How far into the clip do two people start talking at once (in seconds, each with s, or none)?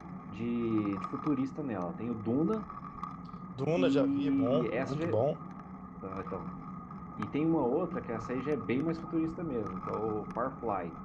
3.8 s